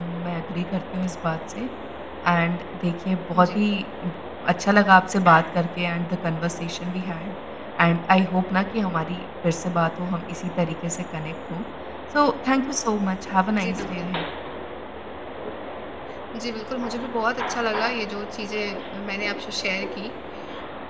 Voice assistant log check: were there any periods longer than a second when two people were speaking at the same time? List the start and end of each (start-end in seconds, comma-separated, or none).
none